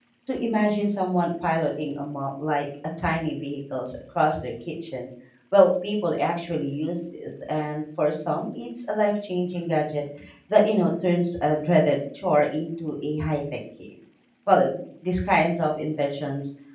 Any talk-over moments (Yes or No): No